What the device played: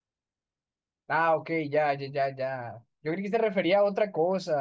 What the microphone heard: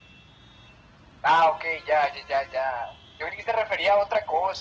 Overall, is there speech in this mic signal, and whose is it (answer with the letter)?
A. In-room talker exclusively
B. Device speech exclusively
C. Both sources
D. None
B